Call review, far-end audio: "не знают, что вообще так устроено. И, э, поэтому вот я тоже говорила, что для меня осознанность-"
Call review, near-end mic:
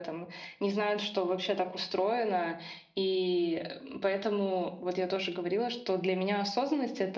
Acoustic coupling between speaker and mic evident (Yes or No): Yes